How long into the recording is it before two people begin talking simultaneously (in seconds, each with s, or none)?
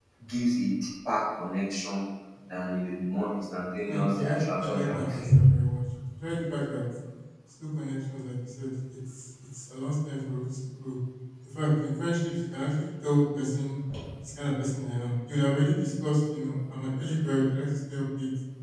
3.9 s